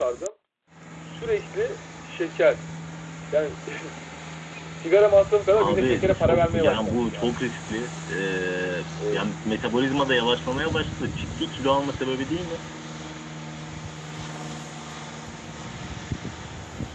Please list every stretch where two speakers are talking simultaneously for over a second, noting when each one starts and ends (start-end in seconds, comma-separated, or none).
5.5-7.3